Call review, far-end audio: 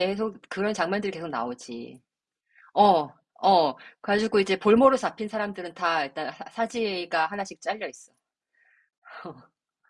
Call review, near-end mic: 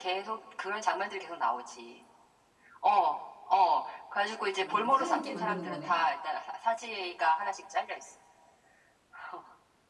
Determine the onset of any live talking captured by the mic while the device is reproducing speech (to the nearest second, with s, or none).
5 s